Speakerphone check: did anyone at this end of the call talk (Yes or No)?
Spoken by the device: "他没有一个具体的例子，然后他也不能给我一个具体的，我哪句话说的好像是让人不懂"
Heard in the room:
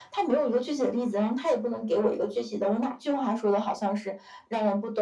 No